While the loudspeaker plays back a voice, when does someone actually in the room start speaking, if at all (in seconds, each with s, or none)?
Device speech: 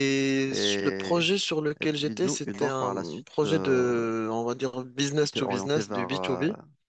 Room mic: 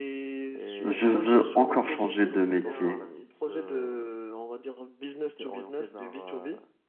0.8 s